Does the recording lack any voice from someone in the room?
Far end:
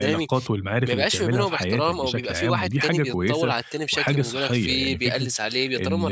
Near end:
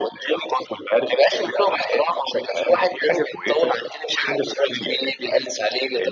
Yes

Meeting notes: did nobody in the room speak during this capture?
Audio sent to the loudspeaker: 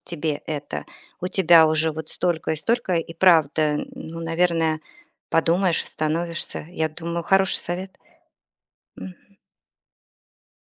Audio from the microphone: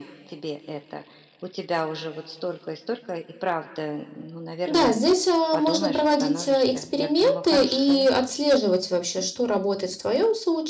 No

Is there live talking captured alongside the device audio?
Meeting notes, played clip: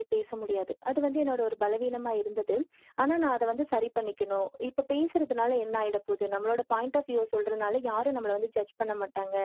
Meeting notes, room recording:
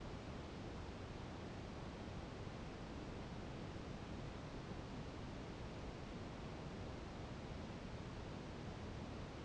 No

